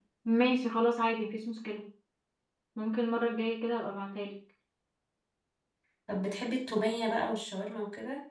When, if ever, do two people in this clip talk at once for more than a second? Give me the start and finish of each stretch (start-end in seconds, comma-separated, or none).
none